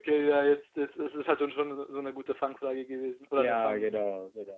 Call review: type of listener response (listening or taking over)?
taking over